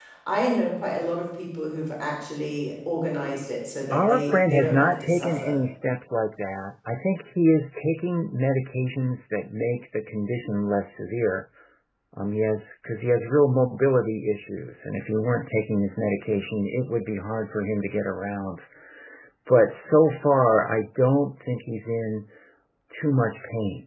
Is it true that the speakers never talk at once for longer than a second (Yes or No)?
No